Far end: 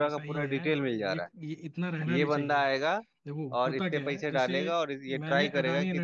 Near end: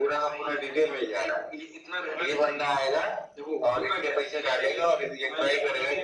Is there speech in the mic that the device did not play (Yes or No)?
No